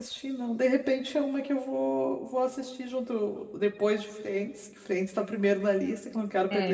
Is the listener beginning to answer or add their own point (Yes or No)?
Yes